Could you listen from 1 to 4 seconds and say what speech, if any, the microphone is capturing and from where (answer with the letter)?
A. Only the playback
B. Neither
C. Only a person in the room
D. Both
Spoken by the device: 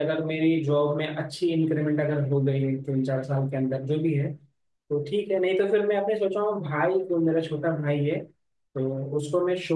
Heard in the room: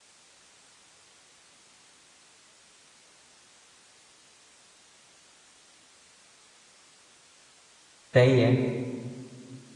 B